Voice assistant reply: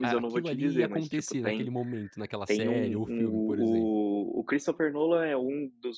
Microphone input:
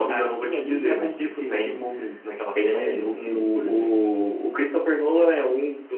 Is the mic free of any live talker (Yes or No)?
Yes